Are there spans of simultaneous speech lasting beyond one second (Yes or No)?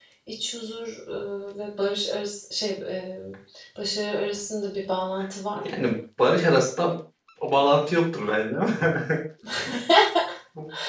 No